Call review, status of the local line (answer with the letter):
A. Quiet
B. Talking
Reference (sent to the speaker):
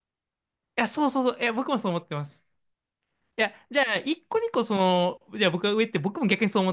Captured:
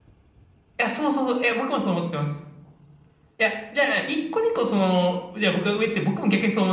A